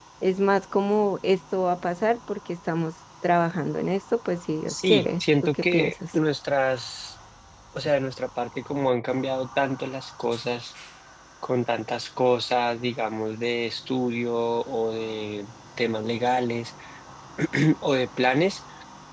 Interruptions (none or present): present